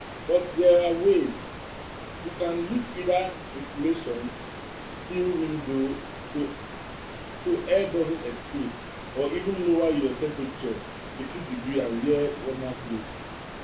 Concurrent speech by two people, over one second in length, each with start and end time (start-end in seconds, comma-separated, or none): none